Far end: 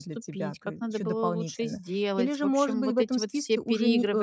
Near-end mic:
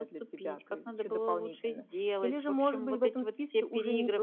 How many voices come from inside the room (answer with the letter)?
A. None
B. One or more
A